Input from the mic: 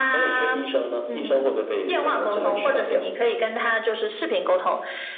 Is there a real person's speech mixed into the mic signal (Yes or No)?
No